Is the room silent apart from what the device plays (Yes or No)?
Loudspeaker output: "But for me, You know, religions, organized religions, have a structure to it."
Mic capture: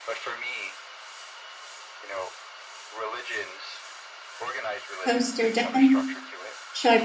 No